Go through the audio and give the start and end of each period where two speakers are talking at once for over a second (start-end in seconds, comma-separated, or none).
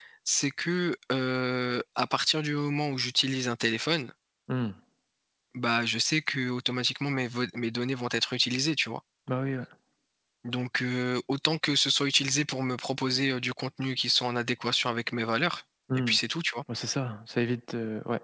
none